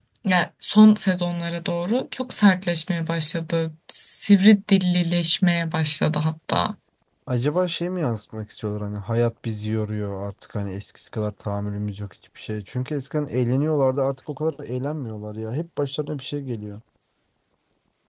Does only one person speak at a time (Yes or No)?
Yes